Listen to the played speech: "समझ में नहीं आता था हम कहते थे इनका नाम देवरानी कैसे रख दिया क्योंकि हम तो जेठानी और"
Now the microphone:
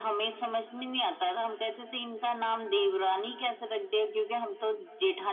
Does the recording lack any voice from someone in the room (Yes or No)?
Yes